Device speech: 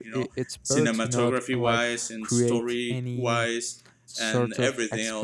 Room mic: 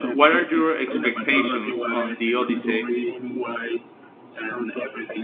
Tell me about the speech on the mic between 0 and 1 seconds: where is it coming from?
both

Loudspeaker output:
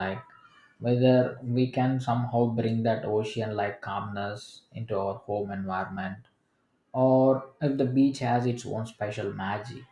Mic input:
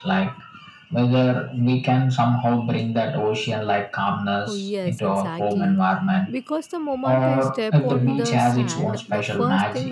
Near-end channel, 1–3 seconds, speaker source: echo only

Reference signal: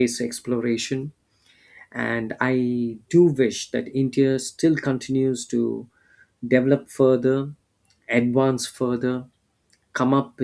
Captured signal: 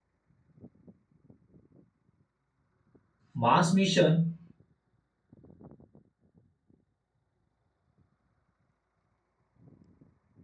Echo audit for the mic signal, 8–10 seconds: neither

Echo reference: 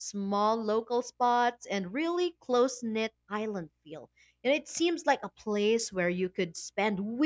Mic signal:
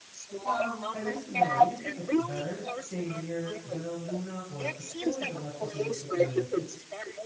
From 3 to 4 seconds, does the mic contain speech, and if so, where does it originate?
both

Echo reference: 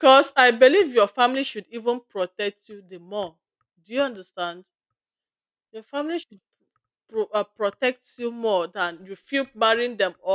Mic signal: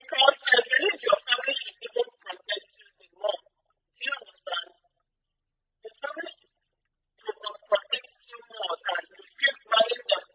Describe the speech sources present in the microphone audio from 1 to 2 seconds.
echo only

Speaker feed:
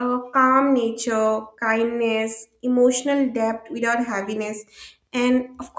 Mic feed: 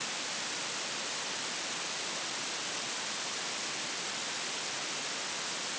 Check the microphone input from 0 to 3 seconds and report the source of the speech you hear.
neither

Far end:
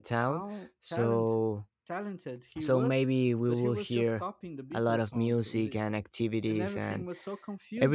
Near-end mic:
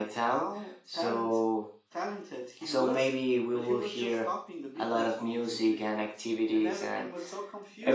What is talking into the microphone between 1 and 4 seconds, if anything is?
echo only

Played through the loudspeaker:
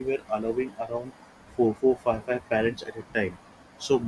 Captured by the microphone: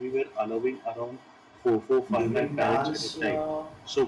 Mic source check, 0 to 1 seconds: echo only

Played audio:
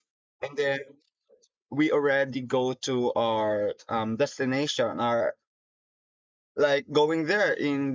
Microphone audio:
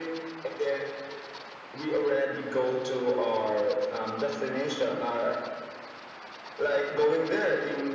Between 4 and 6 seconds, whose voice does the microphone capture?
echo only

